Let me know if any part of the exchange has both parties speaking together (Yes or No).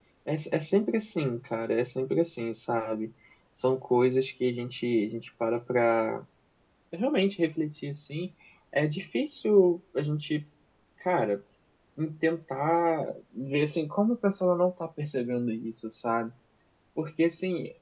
No